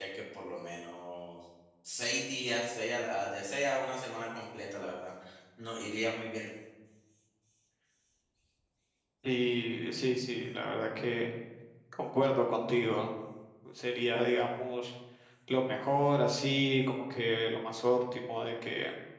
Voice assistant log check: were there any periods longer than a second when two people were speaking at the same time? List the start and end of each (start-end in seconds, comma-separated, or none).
none